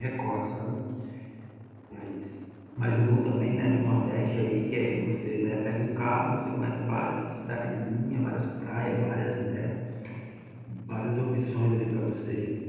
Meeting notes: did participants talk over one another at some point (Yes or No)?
No